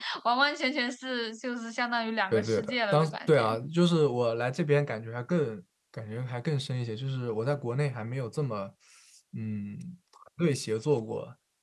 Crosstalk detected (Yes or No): Yes